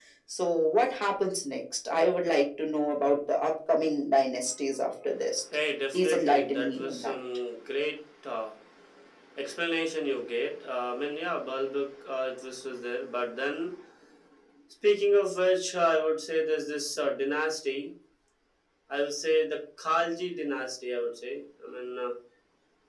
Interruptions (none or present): present